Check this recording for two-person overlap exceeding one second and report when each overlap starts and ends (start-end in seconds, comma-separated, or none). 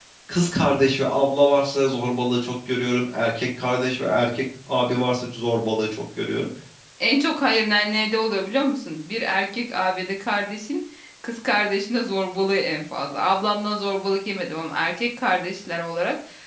none